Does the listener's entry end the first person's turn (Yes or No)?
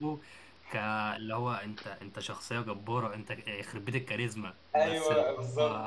Yes